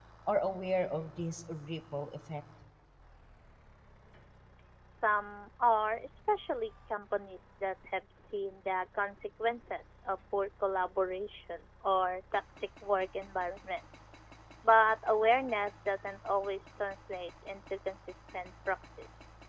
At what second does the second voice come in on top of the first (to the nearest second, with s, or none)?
none